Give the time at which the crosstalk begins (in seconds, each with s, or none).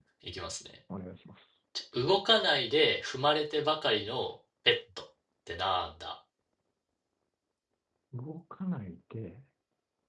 none